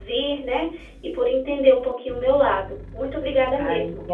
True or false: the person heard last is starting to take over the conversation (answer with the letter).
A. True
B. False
A